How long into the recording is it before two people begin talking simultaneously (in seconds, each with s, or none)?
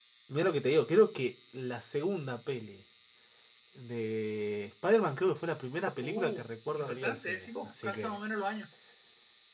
6.0 s